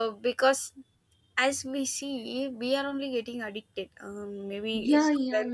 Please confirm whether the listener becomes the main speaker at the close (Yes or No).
Yes